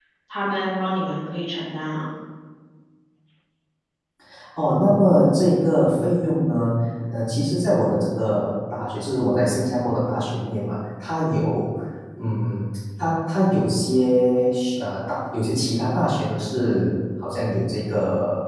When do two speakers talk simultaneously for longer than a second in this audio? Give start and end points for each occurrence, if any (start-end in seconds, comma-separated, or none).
none